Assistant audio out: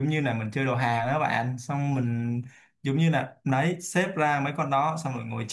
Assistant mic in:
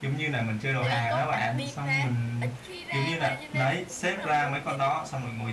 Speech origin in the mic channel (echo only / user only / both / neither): both